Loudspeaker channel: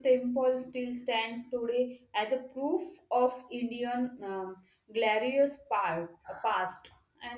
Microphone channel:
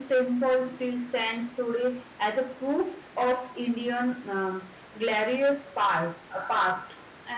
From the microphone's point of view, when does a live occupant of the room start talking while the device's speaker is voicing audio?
none

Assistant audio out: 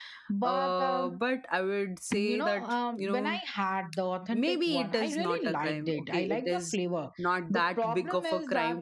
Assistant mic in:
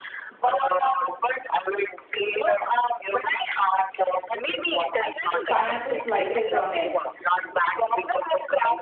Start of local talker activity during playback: 5.5 s

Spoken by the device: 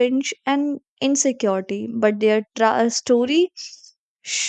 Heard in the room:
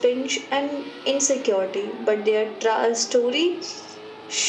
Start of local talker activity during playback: none

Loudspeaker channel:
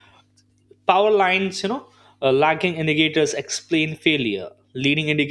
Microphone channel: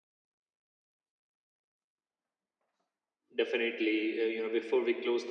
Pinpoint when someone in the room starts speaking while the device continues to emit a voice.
3.3 s

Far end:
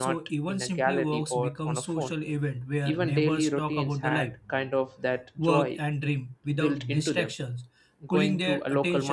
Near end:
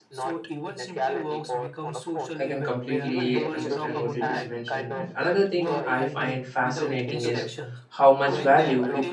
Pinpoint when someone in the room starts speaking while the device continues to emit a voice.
2.4 s

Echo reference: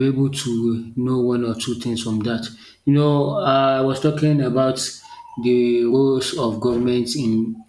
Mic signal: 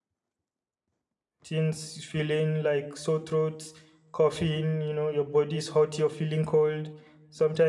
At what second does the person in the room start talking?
1.4 s

